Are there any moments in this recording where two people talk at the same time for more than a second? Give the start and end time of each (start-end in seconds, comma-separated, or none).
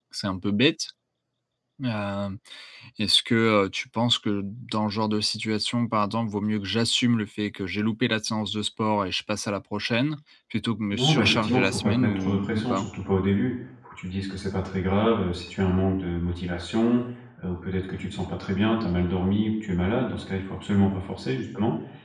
10.9-12.8